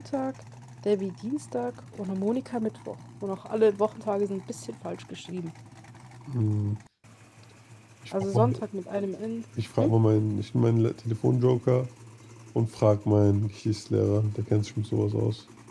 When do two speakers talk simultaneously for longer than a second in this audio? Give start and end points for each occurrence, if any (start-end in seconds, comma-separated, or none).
none